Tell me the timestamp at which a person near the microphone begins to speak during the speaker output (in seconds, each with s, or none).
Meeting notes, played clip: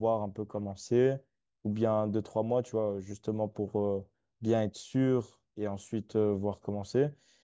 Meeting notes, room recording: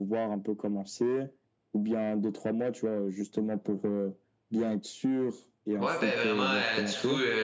5.8 s